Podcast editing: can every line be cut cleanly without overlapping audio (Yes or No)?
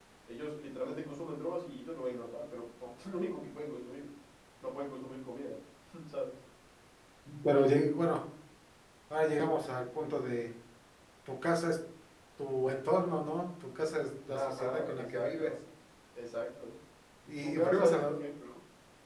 No